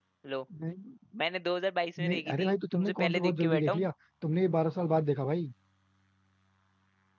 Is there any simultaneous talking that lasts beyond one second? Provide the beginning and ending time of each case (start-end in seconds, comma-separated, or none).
2.0-3.9